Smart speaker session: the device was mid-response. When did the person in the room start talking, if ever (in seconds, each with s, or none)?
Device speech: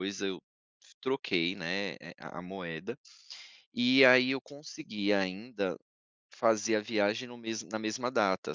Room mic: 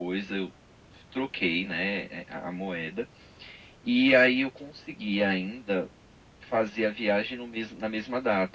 none